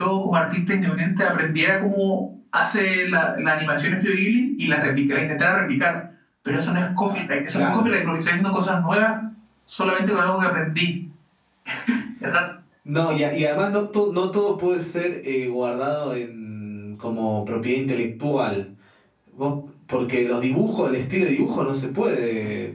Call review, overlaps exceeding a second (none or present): none